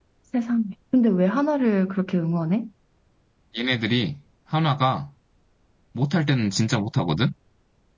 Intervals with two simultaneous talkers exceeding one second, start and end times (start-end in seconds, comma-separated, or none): none